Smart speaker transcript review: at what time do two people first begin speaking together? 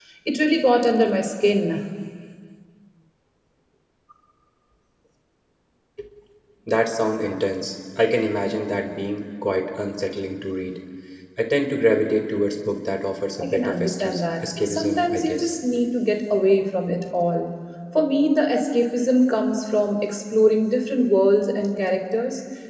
13.4 s

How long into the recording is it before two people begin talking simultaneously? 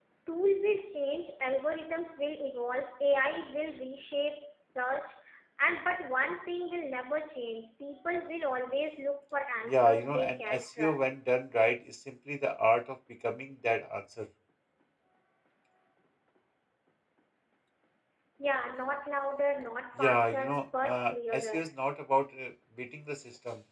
9.7 s

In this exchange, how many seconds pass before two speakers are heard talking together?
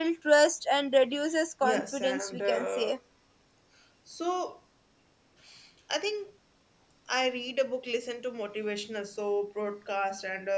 1.6 s

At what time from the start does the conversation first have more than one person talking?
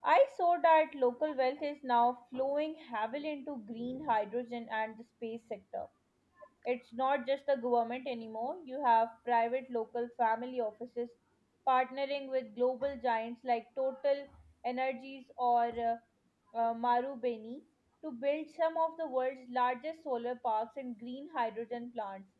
none

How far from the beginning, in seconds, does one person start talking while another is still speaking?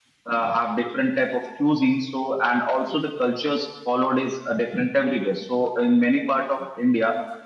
none

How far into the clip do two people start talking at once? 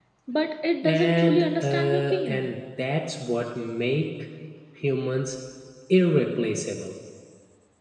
0.8 s

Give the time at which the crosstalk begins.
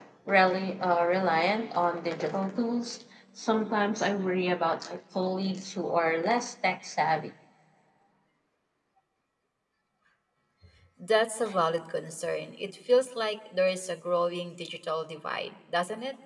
none

